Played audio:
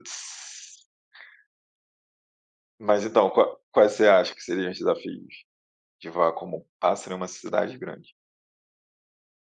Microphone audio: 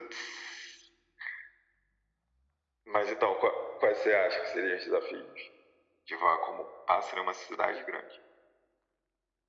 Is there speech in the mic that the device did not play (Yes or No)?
No